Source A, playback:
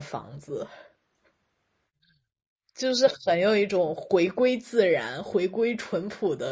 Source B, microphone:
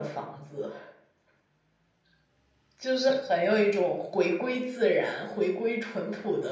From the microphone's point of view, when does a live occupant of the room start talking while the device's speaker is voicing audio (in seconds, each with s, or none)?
none